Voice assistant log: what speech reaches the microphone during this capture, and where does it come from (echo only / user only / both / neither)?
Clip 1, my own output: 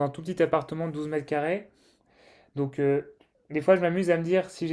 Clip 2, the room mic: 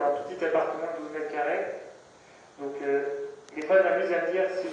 echo only